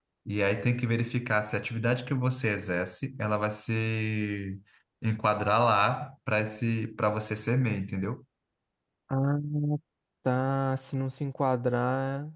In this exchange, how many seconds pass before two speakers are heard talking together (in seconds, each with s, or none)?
none